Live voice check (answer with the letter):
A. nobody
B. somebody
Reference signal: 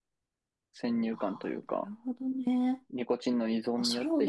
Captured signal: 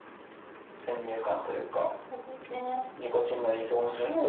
A